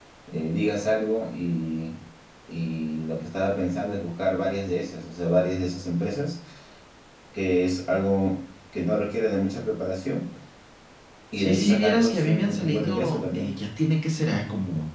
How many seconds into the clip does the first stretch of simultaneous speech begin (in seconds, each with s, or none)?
11.4 s